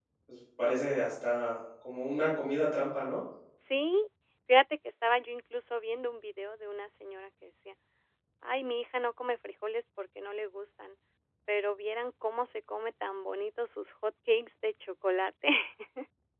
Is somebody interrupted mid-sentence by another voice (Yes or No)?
No